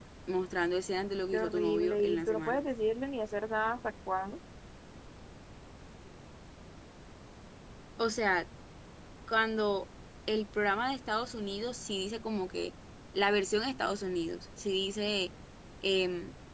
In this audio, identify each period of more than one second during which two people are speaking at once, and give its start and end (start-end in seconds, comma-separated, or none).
1.3-2.6